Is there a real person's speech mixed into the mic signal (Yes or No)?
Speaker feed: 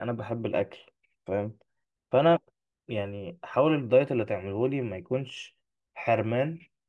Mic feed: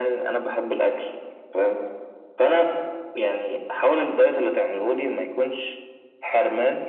No